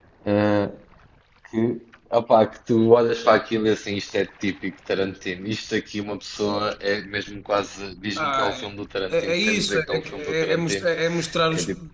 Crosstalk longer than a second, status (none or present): present